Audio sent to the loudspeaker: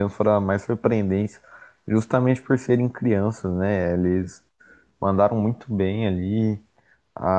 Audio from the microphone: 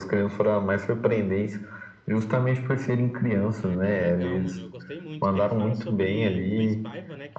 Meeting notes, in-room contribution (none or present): present